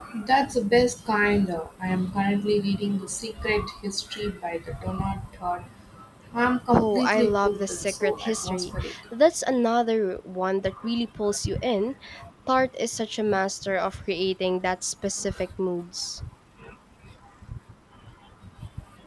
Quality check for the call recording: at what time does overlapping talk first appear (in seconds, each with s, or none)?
6.7 s